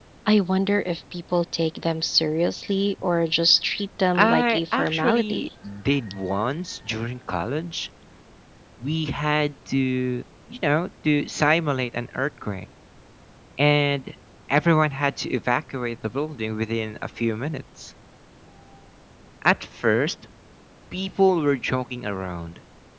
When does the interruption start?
4.2 s

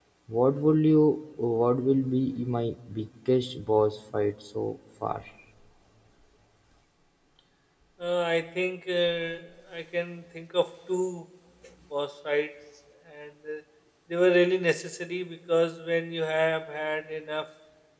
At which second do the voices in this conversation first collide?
none

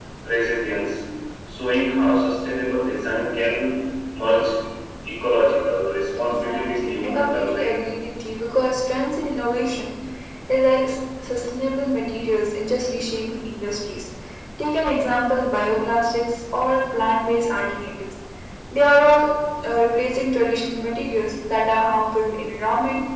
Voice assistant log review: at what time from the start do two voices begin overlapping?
6.2 s

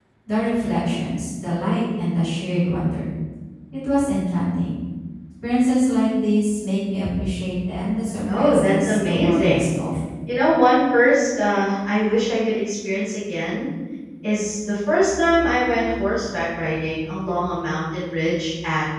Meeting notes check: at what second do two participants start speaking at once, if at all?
8.3 s

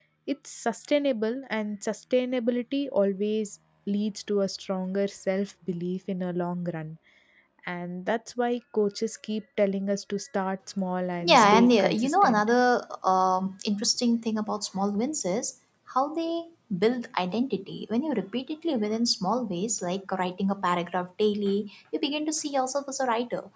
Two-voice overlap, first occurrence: 11.2 s

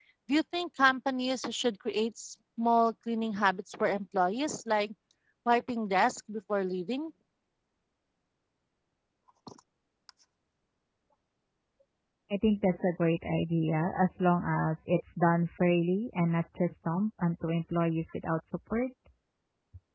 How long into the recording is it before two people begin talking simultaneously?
none

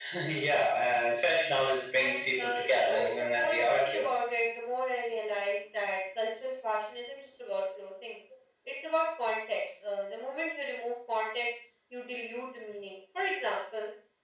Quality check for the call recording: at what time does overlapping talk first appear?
1.9 s

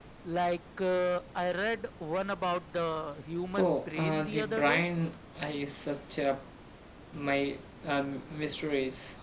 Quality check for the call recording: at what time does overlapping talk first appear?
3.6 s

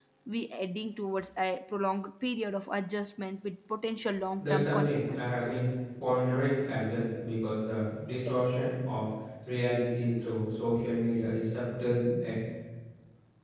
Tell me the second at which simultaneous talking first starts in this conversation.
4.4 s

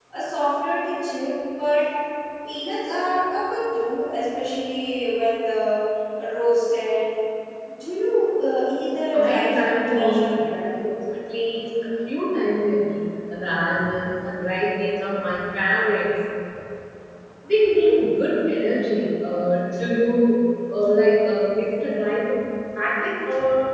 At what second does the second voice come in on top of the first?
9.1 s

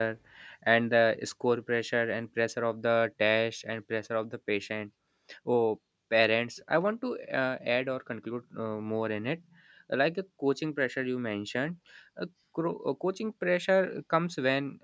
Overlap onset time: none

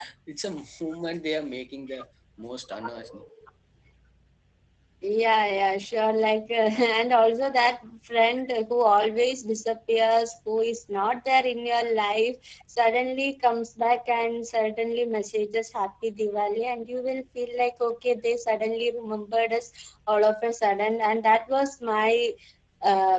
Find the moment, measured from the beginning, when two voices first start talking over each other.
none

